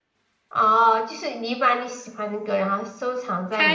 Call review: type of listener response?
taking over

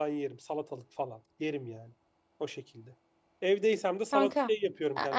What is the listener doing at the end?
taking over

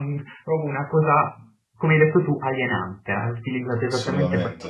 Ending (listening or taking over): listening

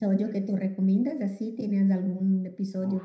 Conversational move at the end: taking over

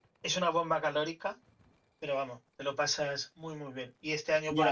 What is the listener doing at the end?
taking over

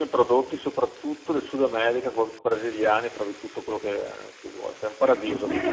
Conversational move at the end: taking over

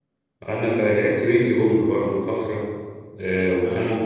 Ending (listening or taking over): listening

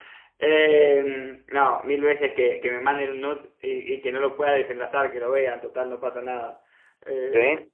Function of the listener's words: listening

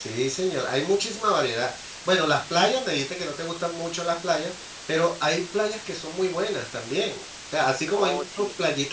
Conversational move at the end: listening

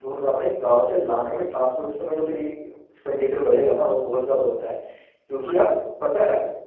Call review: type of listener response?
listening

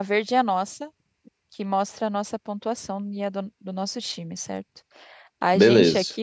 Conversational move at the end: listening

